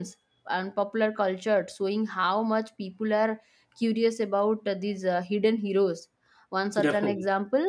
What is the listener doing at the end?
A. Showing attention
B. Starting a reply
A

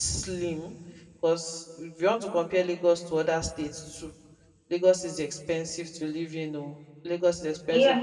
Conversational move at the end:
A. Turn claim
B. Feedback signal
A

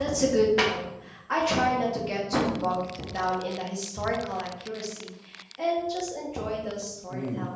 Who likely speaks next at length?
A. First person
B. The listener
B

